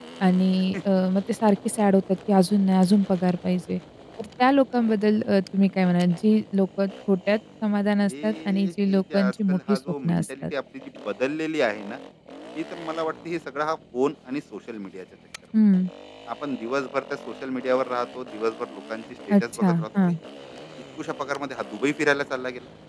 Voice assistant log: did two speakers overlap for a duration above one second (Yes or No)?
Yes